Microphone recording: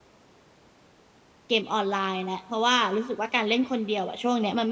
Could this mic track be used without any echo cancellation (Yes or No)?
Yes